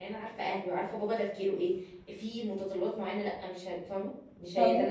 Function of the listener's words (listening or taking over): listening